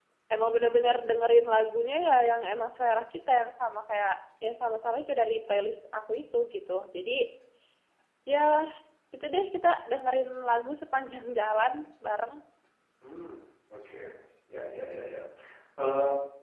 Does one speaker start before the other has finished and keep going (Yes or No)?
No